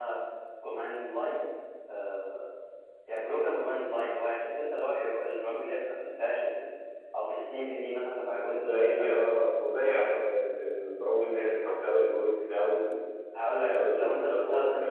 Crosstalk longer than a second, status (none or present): present